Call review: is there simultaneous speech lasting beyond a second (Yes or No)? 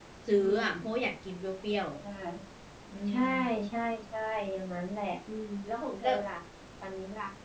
No